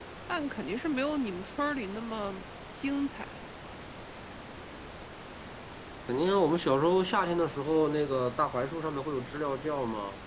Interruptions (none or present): none